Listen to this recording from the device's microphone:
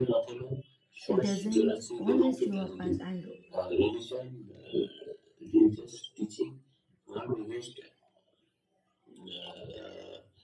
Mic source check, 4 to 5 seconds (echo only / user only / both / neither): echo only